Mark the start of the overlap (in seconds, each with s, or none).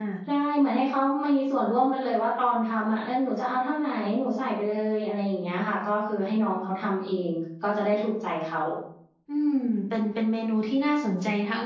none